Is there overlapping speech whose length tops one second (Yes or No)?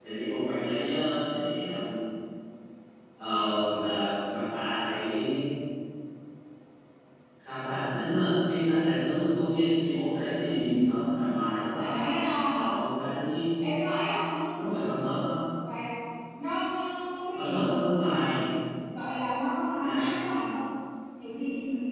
No